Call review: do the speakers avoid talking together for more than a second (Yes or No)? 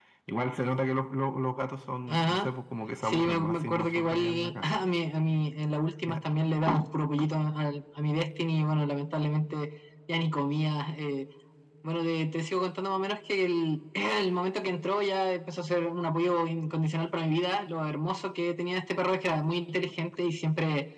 No